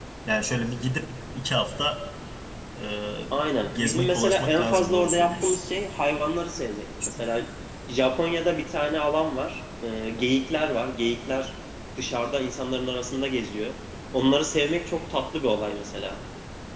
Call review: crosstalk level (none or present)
present